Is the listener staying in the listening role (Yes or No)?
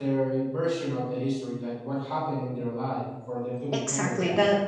No